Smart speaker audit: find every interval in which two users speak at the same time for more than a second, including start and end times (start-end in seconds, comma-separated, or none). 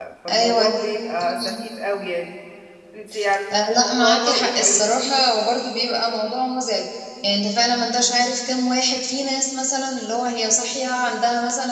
3.8-5.2